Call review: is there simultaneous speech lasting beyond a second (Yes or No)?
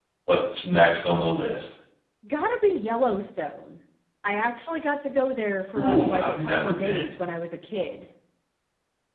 Yes